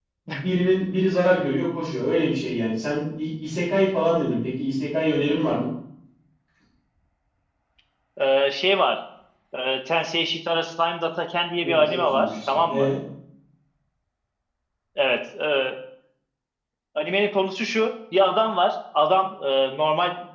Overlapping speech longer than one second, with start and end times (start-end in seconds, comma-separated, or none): 11.6-12.9